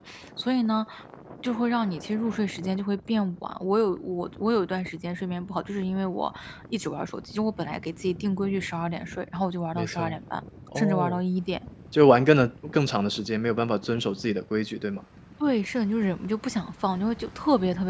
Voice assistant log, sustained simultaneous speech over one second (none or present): none